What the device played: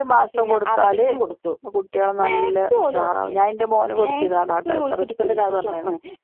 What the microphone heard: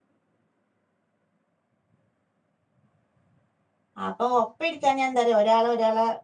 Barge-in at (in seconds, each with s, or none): 4.0 s